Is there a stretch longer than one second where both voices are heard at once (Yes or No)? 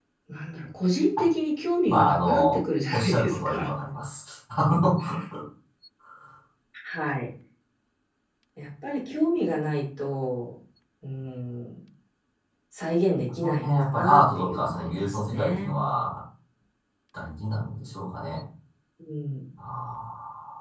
Yes